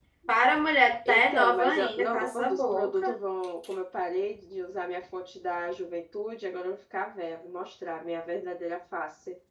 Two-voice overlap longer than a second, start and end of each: 1.1-3.1

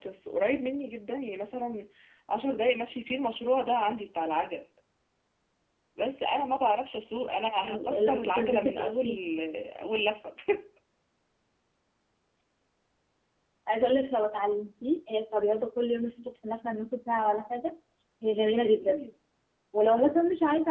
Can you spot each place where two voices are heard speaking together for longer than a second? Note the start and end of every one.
7.6-9.1

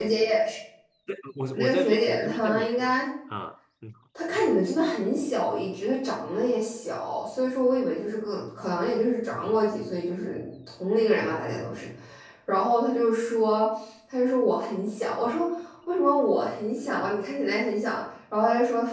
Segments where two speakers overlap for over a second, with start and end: 1.5-3.0

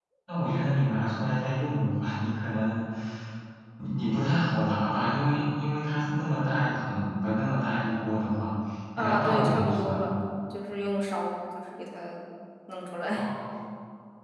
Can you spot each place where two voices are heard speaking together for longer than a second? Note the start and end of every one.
9.0-10.2

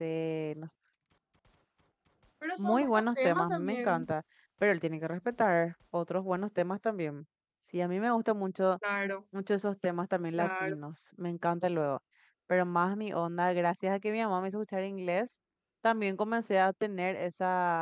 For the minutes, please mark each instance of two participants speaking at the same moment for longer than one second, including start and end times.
2.6-4.1

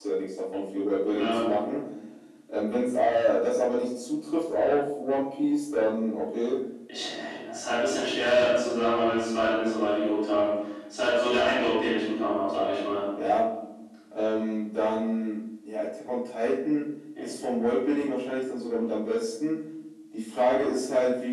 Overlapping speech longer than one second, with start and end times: none

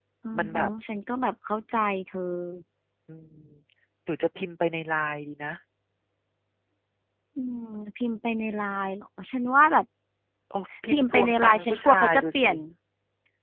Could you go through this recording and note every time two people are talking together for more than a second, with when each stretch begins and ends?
10.9-12.5

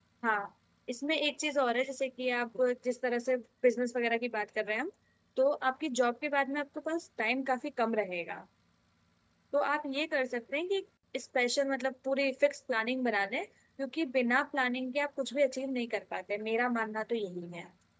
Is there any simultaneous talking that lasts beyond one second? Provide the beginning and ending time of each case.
none

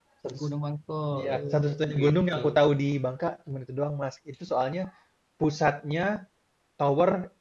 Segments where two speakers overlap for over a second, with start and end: 1.1-2.4

